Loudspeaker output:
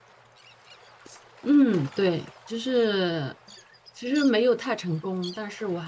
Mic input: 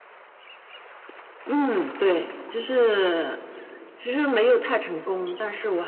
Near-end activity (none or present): none